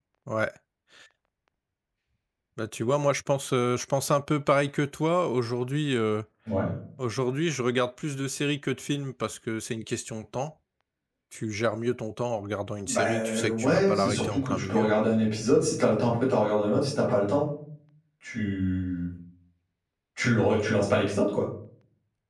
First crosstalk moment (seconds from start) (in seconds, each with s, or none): 12.8 s